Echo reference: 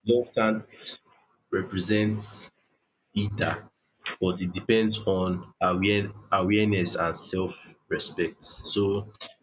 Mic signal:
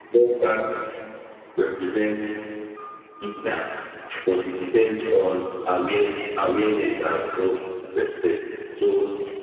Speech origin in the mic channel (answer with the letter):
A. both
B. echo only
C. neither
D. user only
B